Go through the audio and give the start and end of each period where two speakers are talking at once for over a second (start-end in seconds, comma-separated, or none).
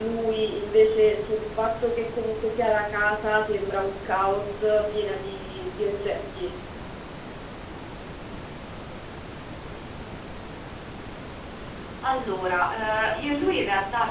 none